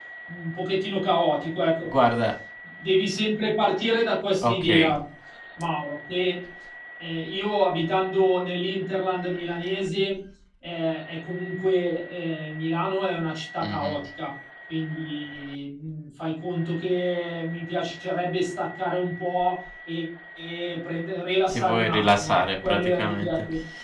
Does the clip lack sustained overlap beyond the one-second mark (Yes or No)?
No